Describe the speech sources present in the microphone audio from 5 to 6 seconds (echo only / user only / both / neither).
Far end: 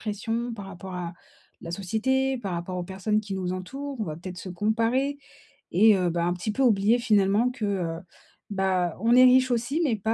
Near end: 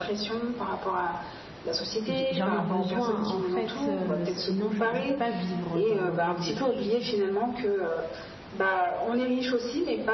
both